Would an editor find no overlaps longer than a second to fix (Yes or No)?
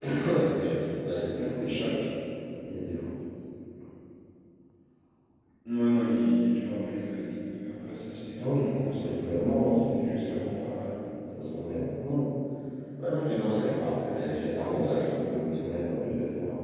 No